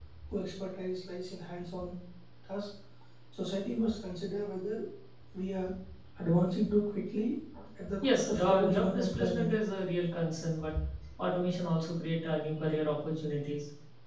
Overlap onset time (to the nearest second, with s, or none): 8 s